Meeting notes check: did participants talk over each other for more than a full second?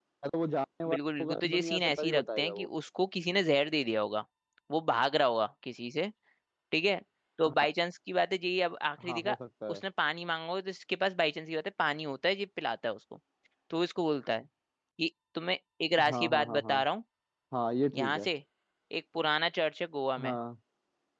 Yes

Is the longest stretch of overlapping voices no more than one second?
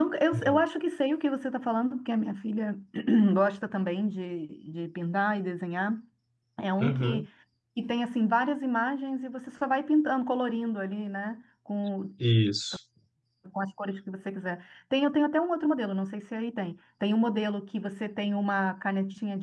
Yes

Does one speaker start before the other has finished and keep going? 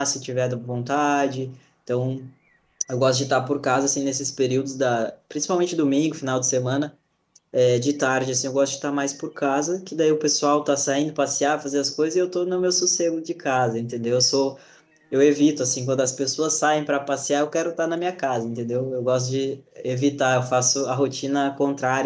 No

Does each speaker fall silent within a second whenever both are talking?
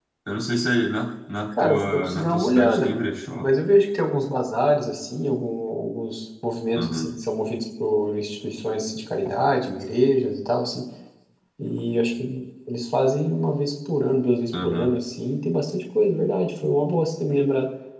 No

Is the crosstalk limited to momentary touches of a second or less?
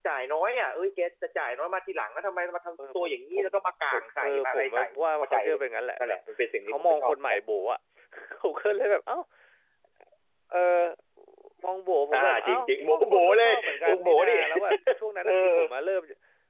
No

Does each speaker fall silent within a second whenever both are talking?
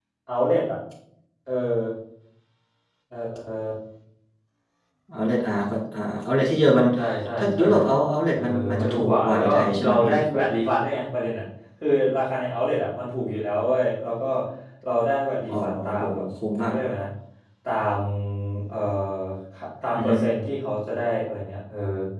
No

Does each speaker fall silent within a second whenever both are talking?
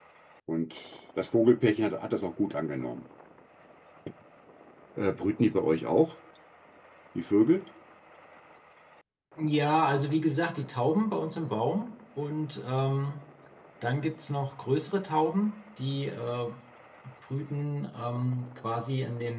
Yes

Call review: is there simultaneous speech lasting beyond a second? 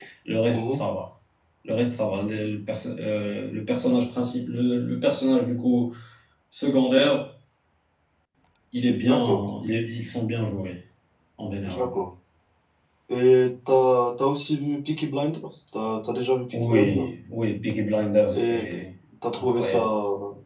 No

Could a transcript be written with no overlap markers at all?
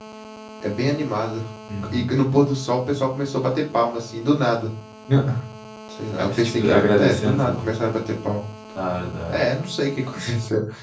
No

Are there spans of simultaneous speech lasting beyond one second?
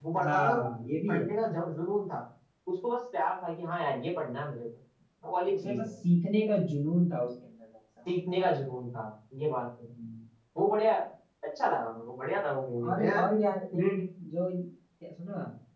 No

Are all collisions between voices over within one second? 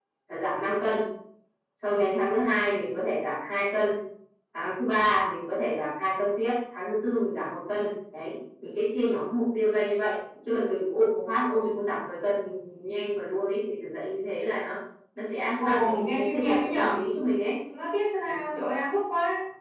No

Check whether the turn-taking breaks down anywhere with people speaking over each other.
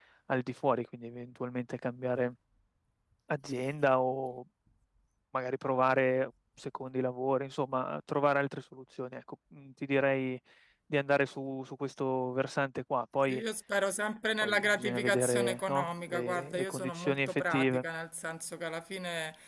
Yes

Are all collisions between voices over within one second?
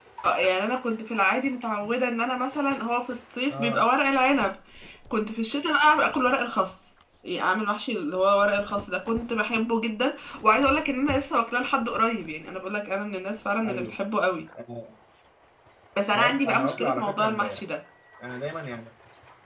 No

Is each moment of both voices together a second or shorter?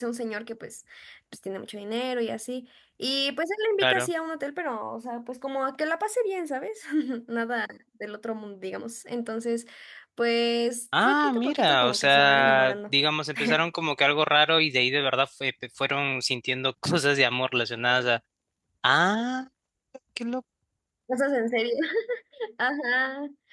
No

